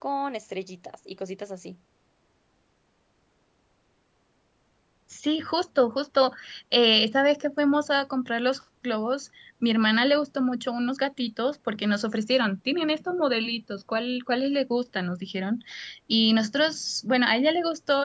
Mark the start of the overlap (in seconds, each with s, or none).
none